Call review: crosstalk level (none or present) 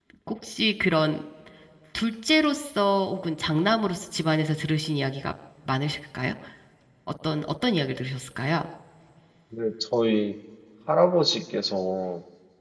none